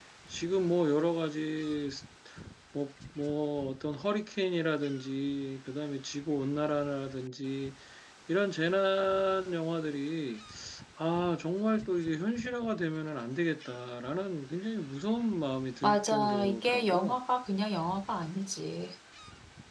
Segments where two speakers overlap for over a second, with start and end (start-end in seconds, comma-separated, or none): 15.8-17.2